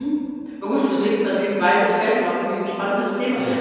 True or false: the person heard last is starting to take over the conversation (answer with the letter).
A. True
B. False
B